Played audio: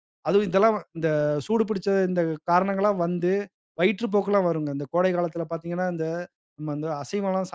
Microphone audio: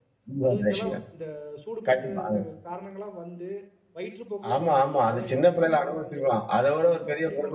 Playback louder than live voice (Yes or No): No